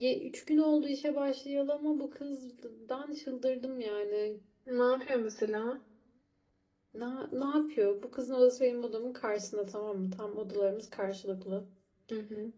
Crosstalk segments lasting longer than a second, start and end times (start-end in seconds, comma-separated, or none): none